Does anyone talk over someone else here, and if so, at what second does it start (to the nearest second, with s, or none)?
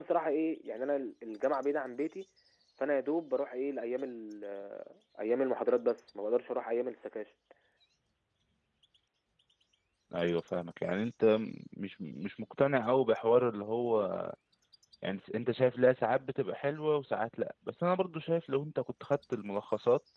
none